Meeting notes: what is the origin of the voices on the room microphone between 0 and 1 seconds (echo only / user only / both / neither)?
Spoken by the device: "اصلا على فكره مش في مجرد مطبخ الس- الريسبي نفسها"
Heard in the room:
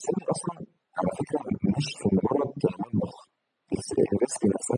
echo only